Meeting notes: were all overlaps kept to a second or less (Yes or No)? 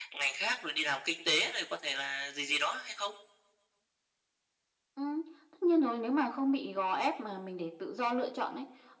Yes